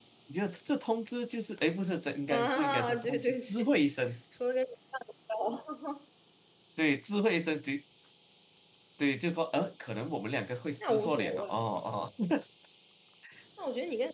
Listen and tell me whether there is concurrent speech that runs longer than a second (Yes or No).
Yes